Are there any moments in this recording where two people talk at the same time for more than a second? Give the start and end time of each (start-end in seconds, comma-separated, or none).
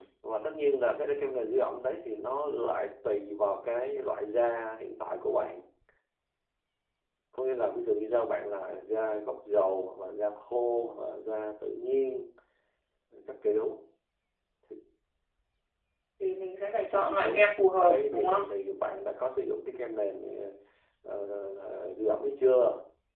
17.2-18.4